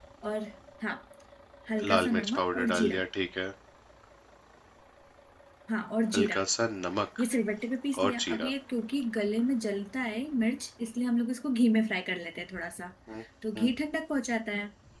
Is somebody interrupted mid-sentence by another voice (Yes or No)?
Yes